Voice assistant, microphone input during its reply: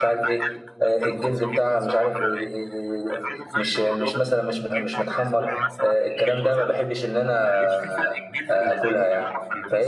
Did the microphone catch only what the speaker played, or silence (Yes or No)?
No